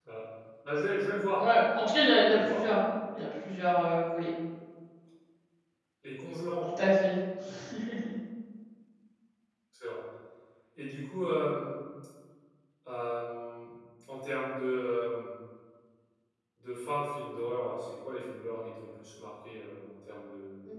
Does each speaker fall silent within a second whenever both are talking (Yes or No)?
Yes